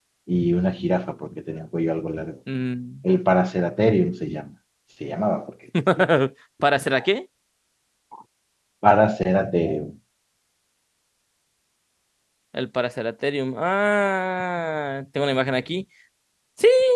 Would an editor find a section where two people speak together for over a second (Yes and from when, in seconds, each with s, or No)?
No